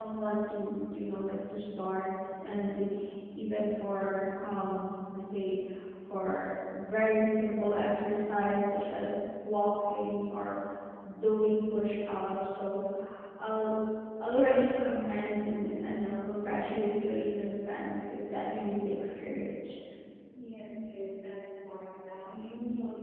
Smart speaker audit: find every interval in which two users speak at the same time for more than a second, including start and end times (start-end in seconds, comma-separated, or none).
none